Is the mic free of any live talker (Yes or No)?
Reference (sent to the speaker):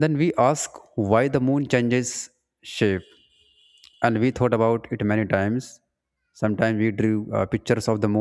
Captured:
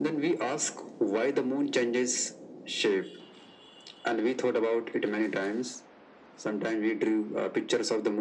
Yes